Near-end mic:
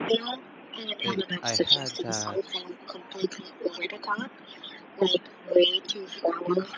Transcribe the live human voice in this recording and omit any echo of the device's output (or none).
It, I had that